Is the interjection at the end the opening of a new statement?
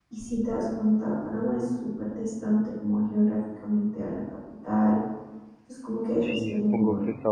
Yes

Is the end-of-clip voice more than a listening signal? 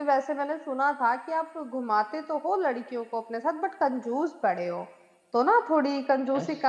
No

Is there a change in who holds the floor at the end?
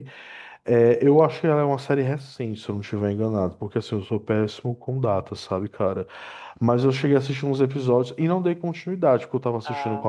No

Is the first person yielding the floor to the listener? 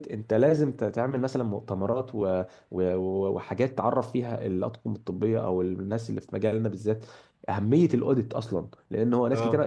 No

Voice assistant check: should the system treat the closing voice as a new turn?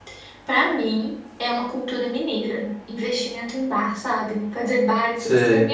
No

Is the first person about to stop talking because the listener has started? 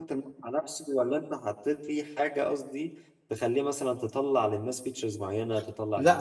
Yes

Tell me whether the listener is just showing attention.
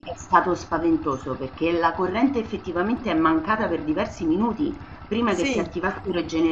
Yes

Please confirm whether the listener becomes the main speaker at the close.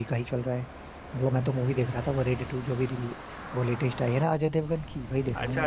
Yes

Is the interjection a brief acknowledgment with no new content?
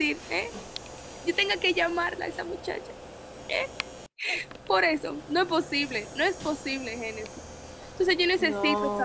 Yes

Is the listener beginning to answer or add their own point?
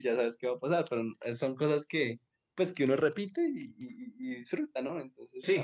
Yes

